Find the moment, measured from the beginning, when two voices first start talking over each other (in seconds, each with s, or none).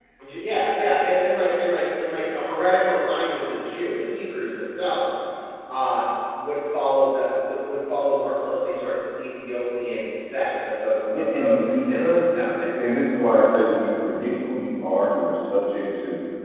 11.1 s